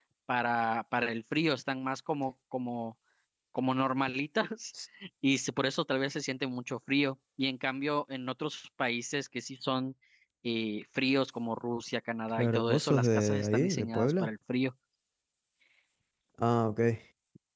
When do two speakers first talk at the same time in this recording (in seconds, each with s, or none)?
12.4 s